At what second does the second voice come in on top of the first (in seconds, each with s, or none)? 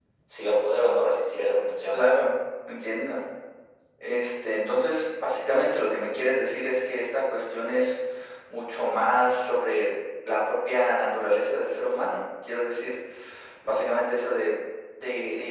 none